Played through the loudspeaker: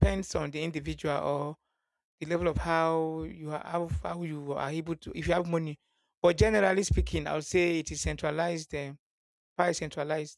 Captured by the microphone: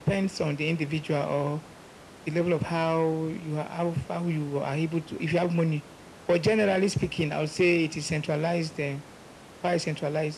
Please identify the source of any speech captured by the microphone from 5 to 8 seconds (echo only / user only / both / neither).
echo only